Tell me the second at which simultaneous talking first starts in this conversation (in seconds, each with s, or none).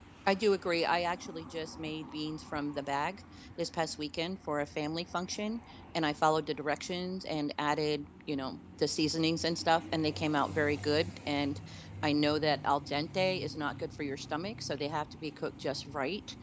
none